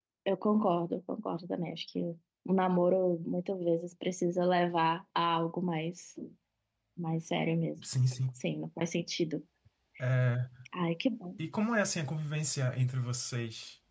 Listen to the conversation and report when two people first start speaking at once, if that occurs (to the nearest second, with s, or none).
none